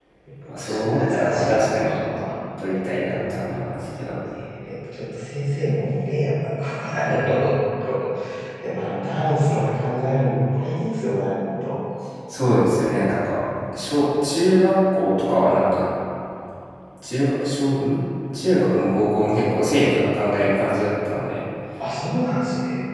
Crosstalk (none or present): present